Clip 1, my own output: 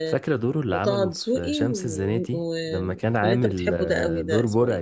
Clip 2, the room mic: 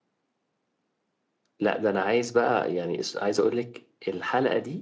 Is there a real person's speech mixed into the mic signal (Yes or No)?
Yes